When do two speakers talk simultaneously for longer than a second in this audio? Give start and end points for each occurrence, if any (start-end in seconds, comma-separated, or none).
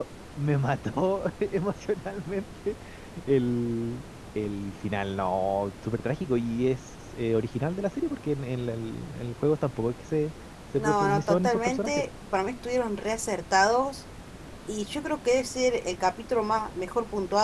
10.8-12.0